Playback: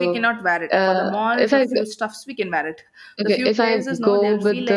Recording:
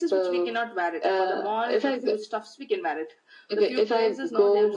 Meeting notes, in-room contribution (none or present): none